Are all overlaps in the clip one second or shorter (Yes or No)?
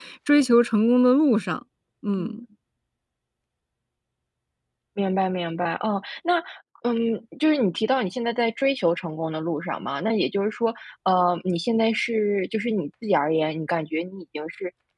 Yes